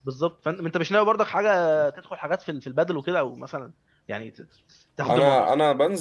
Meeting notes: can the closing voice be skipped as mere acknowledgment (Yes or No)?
No